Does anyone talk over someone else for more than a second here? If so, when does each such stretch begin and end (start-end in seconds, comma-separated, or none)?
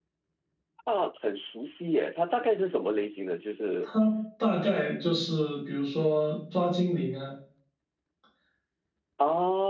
none